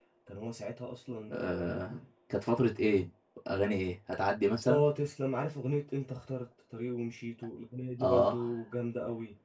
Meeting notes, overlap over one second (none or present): none